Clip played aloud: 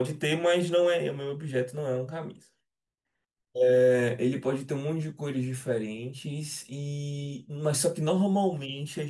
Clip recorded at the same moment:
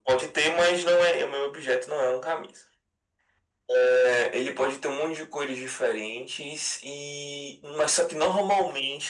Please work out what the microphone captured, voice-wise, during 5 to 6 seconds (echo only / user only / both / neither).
echo only